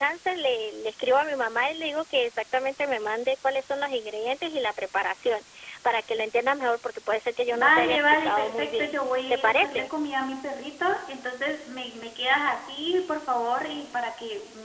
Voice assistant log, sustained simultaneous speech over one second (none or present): present